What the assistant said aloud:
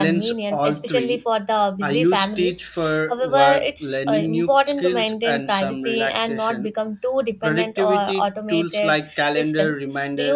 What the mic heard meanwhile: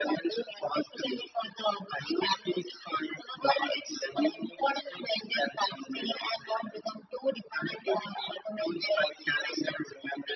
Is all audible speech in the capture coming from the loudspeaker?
Yes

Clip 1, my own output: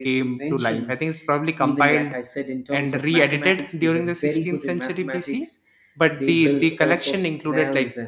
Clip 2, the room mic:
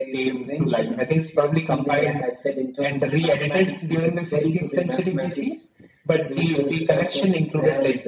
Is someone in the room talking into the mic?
No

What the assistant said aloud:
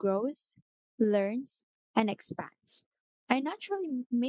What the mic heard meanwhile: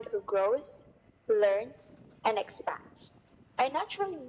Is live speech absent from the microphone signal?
Yes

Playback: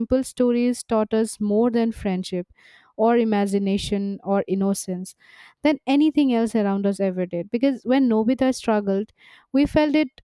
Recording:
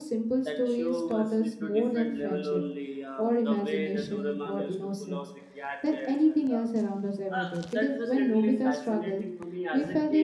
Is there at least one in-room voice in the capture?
Yes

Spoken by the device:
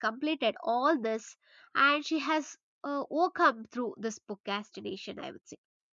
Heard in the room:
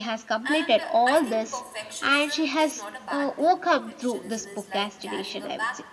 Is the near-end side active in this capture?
Yes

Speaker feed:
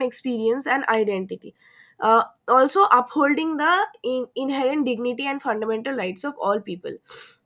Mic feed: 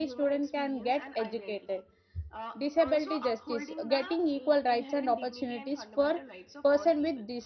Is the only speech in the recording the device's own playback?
No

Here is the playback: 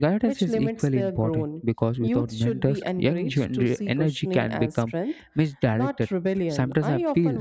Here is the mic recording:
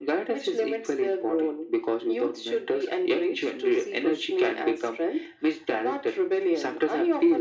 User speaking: No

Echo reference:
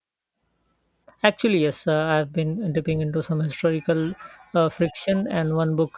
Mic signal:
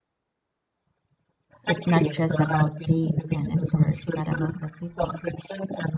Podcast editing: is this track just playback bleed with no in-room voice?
No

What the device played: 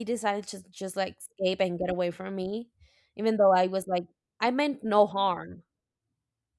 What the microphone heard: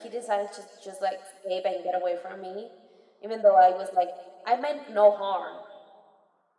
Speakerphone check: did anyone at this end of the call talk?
No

